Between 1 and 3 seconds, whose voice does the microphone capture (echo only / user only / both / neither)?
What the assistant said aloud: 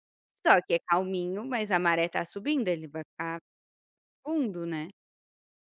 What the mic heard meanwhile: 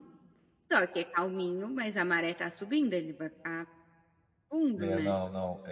echo only